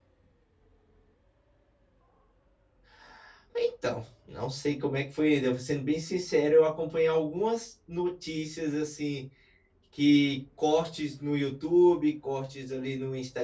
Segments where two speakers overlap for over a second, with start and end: none

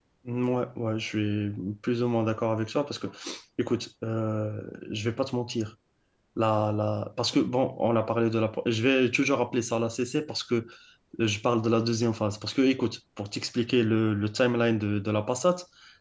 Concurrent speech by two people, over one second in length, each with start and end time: none

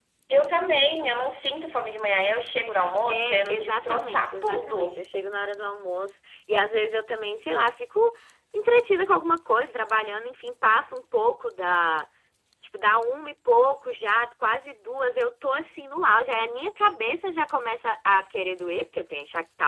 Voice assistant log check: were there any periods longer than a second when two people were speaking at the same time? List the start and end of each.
3.1-5.0

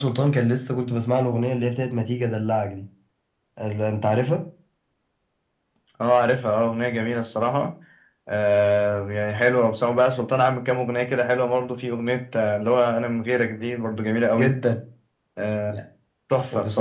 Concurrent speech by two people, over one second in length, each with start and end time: none

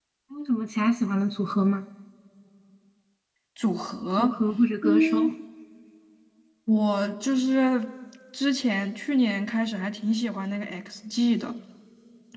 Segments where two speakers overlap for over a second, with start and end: none

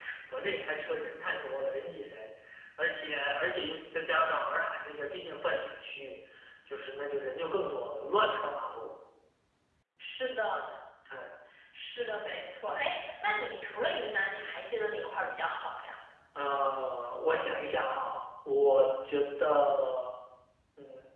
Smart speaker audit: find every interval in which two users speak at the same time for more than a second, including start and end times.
none

